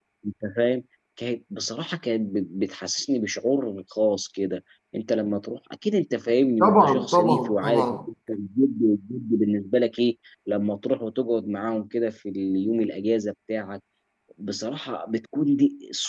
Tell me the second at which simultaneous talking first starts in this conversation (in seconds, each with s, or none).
6.6 s